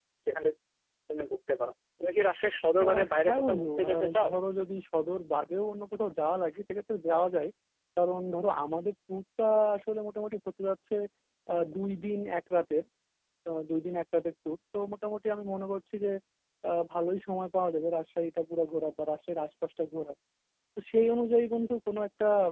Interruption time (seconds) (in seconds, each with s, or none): 2.8 s